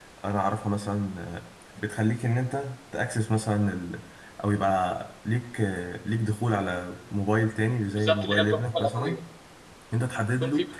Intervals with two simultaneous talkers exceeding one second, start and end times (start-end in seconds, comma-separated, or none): 8.0-9.2